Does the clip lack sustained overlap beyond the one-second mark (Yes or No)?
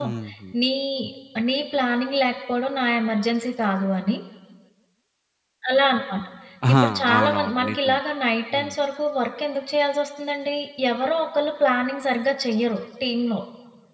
No